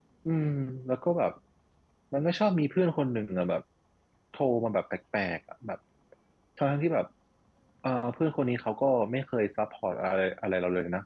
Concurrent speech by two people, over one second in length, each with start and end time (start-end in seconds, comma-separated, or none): none